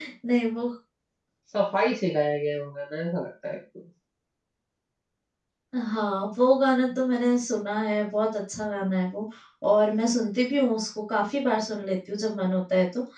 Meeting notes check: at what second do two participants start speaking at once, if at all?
none

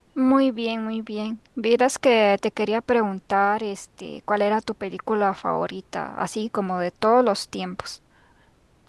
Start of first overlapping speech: none

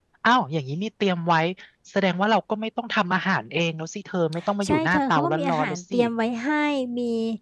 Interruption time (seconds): 4.6 s

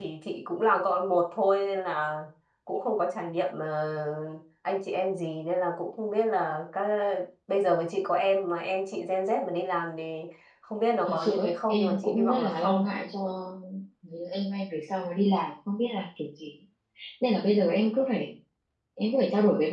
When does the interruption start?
11.1 s

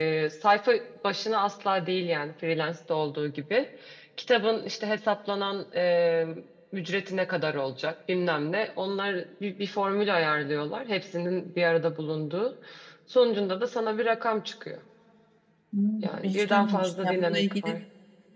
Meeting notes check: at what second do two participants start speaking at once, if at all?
16.0 s

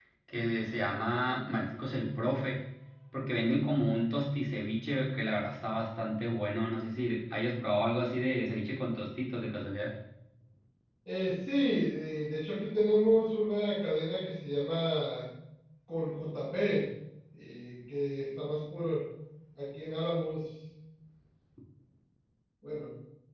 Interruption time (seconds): none

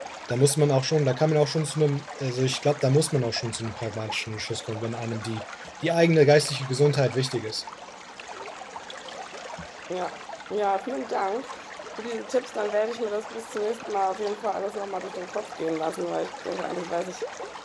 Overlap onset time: none

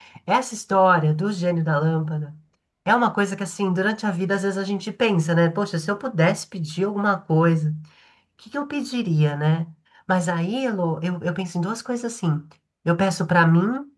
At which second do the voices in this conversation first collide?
none

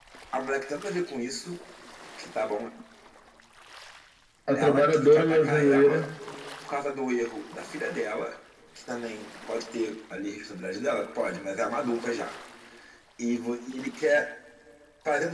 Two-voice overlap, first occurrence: 4.6 s

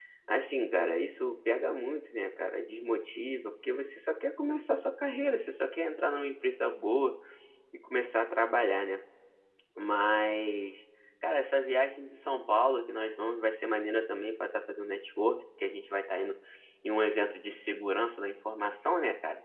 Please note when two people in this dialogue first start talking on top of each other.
none

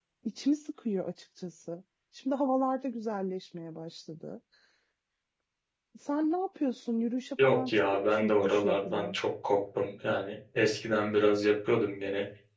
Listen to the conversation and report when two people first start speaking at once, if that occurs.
7.4 s

